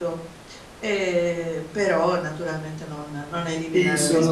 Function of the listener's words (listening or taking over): taking over